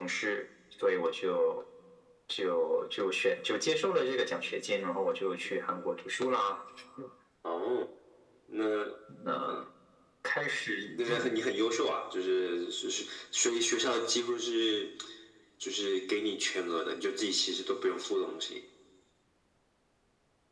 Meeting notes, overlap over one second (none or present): none